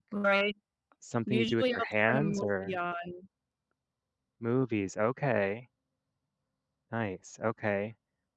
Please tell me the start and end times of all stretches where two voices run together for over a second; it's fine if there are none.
1.3-2.8

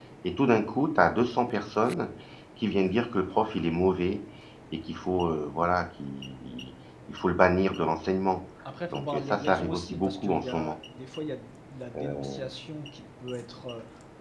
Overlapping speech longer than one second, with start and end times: 8.9-10.8

